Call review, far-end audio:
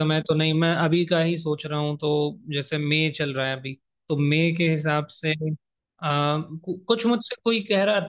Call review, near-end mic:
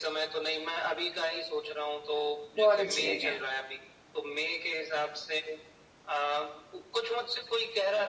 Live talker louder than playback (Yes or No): Yes